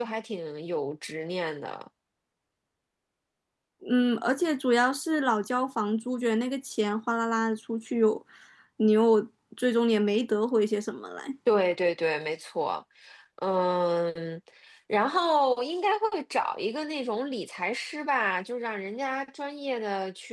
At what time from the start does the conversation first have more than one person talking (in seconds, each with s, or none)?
none